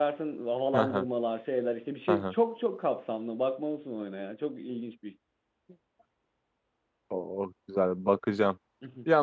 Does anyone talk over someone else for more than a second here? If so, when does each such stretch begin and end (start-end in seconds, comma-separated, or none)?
none